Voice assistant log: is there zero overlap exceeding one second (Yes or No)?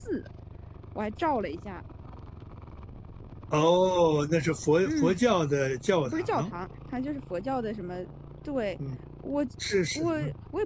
Yes